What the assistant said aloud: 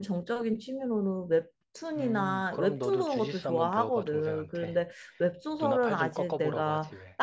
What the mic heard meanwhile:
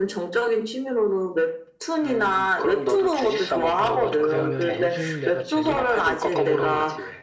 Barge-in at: 3.7 s

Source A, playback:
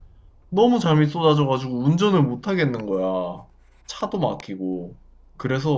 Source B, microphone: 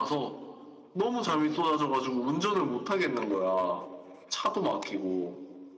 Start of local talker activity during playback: none

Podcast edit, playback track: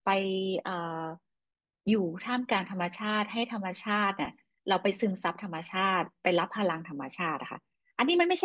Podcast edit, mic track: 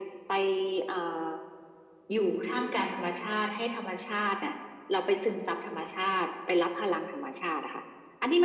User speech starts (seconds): none

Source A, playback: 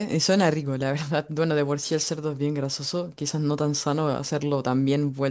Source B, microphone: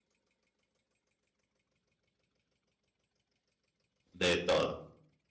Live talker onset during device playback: 4.1 s

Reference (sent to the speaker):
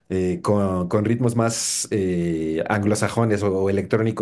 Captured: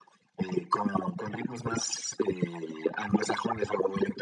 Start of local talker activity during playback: none

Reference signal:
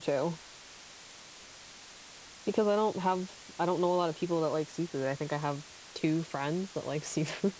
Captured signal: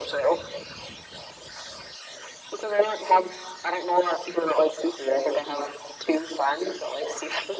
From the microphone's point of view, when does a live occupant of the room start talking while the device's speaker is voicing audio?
none

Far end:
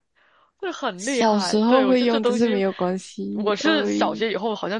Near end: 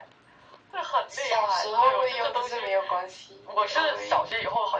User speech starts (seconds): none

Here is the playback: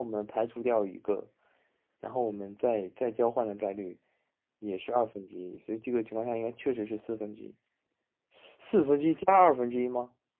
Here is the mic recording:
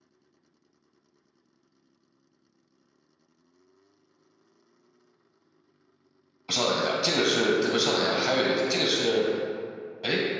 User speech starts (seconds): 6.5 s

